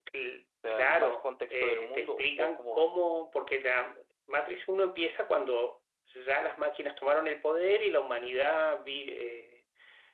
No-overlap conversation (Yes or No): No